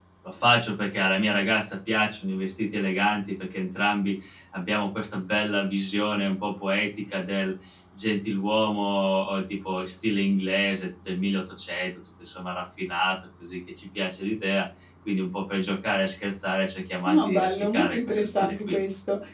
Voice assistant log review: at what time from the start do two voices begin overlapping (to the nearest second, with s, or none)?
17 s